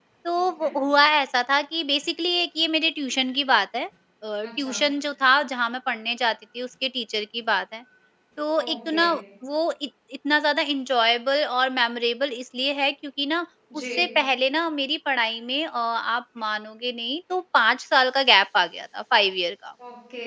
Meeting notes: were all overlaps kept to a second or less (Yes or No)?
Yes